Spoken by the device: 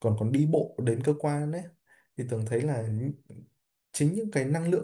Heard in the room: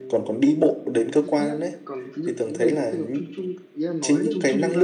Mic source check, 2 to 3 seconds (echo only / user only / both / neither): both